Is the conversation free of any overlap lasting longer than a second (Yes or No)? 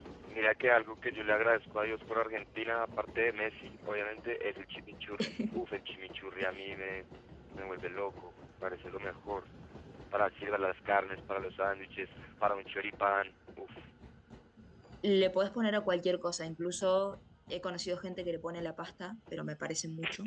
Yes